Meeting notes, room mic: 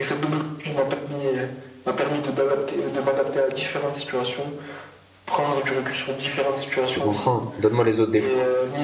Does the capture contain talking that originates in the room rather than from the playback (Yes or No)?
Yes